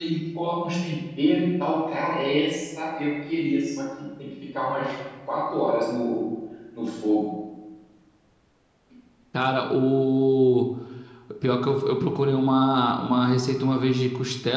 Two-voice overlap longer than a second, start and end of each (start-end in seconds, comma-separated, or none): none